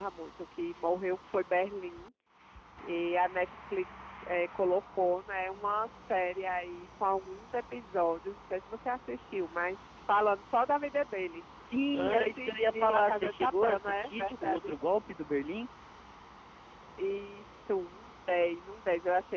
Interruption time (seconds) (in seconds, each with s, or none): 11.9 s